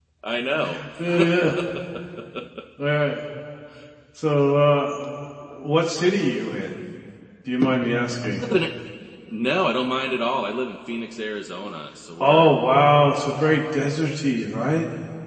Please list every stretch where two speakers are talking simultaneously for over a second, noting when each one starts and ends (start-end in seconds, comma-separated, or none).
none